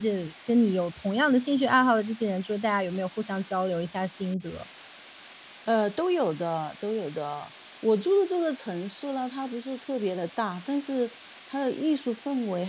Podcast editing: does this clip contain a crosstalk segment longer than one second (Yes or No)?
No